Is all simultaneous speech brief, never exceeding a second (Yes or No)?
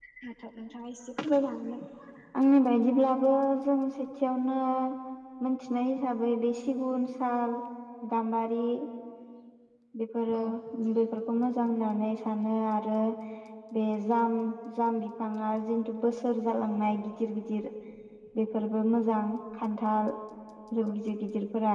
Yes